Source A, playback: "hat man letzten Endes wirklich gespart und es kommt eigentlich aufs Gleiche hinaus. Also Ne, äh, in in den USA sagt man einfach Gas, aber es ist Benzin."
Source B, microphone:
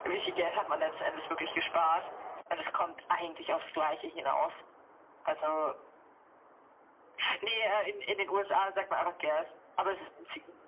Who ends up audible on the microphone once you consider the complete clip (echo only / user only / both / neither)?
echo only